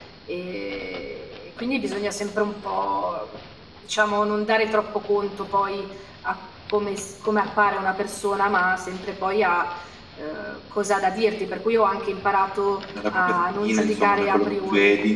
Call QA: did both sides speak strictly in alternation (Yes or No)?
No